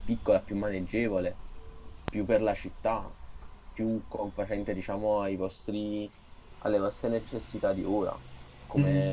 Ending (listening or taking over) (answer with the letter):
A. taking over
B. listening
B